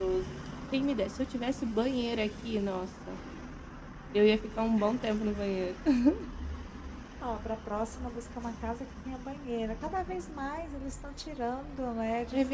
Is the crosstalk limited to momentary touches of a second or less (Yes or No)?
Yes